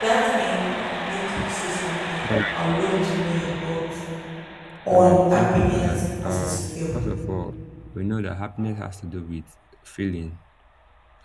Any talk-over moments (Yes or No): Yes